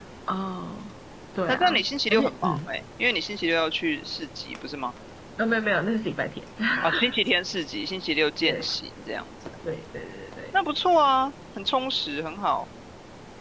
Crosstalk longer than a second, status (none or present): present